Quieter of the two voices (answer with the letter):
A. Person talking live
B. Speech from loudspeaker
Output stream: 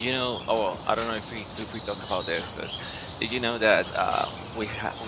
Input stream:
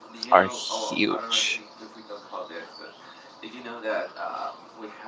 B